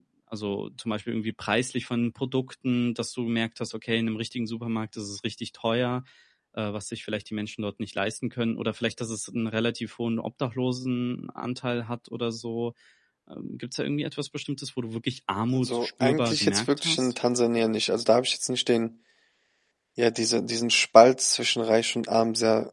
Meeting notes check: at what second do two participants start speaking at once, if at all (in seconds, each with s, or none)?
15.5 s